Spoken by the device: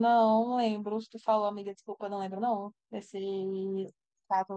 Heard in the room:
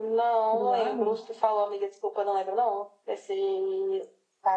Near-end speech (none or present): present